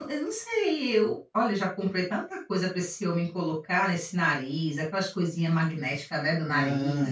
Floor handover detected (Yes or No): Yes